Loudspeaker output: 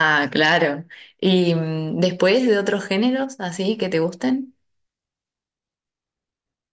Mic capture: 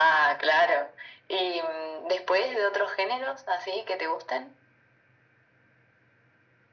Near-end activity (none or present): none